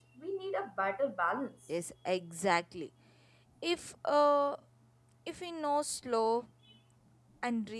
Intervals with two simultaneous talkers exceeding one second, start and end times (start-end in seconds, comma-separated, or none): none